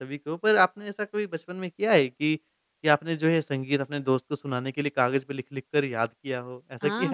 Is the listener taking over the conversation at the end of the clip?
Yes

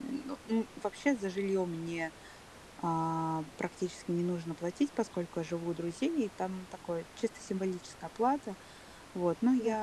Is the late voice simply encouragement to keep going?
Yes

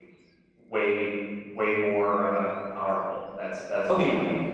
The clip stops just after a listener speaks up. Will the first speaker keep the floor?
No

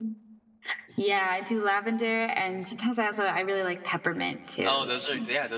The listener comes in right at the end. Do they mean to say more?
Yes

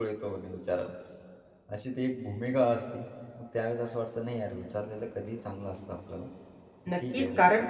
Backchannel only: No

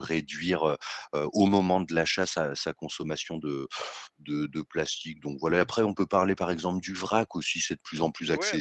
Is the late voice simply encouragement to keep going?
No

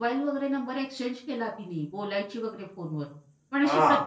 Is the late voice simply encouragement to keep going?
Yes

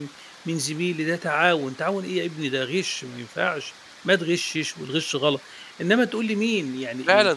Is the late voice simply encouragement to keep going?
No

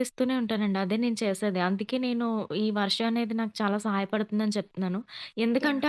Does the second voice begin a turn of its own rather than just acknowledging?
No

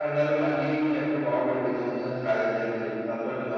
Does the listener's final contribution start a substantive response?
Yes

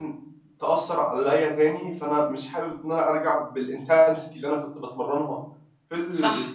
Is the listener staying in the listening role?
Yes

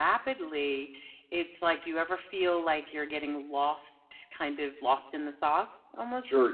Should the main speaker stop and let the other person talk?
Yes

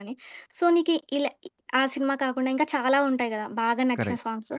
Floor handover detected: No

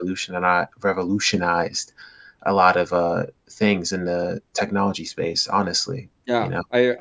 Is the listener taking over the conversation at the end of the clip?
Yes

